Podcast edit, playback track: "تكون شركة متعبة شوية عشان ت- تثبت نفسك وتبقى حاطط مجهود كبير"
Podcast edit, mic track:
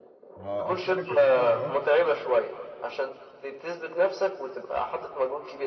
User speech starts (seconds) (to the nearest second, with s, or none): 0 s